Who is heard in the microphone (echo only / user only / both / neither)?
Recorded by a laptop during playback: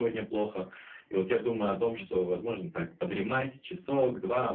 both